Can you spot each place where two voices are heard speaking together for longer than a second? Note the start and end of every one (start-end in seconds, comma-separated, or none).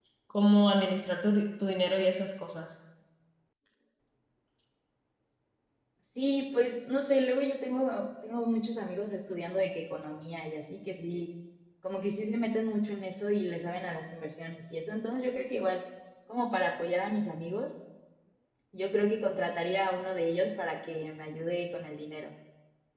none